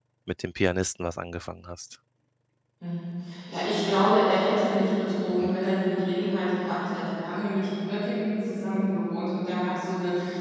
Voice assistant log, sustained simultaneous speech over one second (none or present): none